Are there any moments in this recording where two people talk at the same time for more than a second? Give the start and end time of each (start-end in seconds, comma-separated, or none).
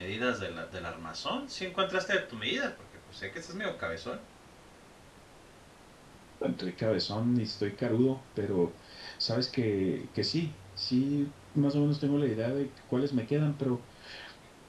none